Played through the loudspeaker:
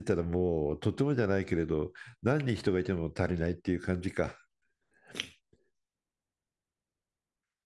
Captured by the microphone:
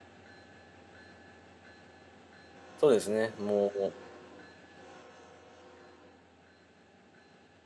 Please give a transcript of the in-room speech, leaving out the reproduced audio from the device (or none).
そうですね。もう、